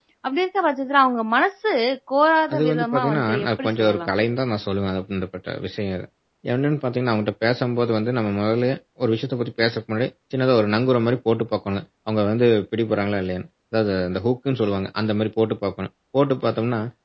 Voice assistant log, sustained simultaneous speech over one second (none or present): present